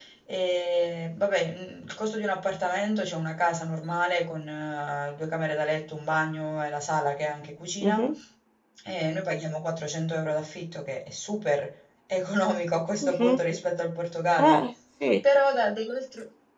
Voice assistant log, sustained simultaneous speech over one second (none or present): none